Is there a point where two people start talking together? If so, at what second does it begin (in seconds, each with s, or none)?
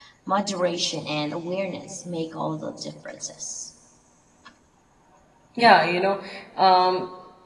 none